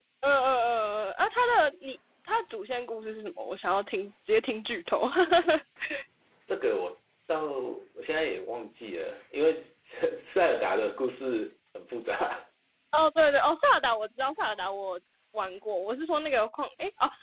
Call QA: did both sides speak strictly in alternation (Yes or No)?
Yes